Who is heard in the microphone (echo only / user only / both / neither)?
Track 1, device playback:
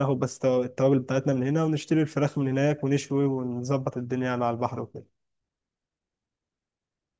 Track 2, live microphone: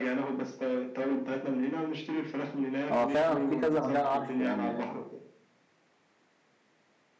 both